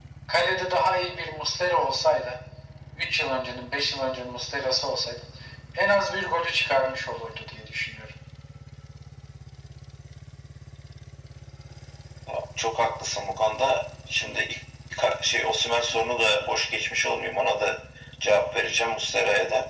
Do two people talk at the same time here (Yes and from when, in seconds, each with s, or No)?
No